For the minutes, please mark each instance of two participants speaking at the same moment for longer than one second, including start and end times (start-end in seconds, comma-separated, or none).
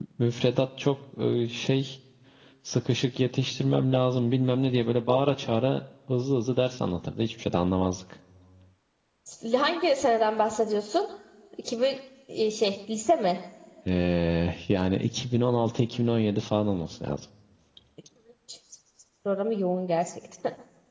none